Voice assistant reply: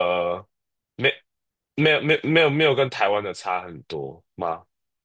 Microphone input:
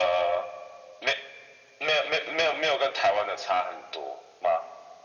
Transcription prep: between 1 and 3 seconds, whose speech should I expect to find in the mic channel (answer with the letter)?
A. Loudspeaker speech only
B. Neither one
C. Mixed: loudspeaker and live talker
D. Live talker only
A